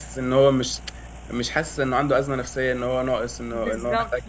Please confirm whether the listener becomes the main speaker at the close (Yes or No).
Yes